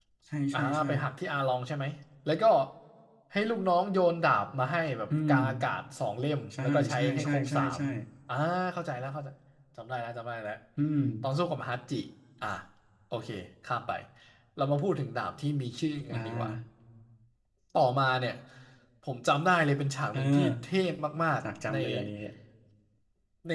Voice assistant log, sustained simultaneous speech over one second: present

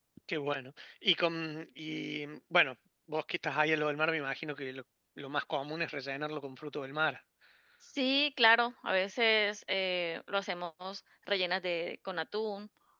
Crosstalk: none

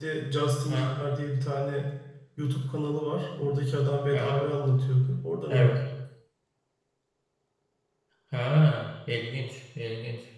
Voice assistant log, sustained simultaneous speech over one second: none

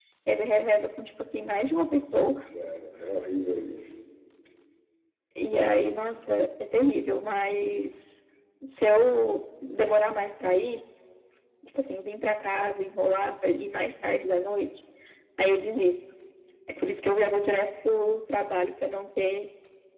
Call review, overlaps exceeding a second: none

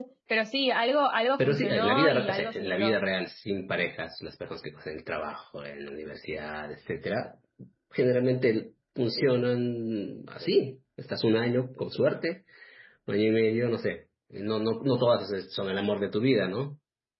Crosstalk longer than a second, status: present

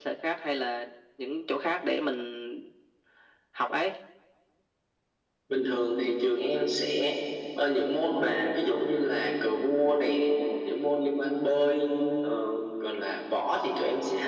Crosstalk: none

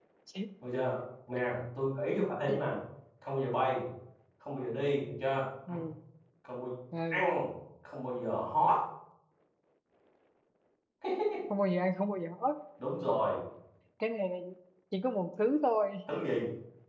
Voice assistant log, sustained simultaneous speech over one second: none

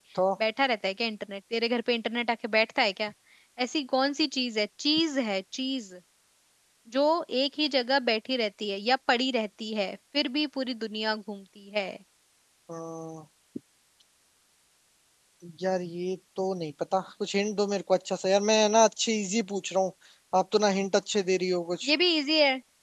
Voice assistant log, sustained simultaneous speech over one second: none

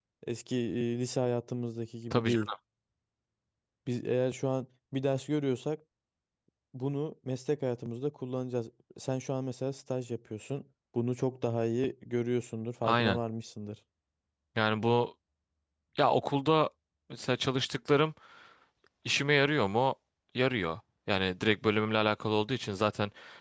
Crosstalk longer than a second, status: none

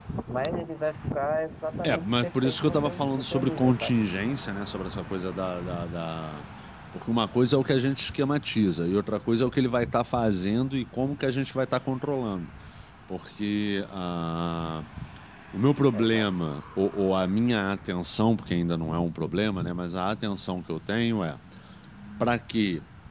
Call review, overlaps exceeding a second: present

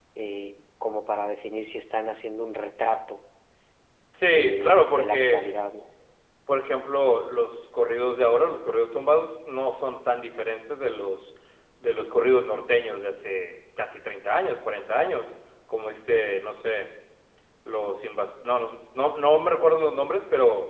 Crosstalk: present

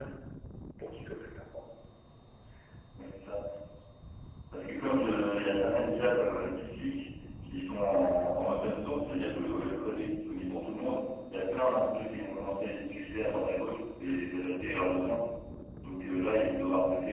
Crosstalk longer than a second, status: none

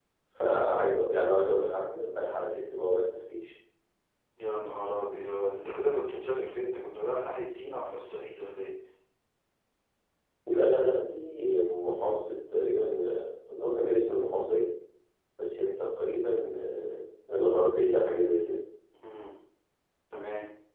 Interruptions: none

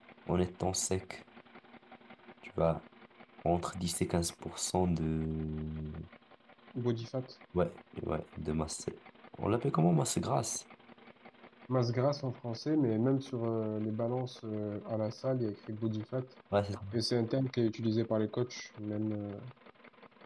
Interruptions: none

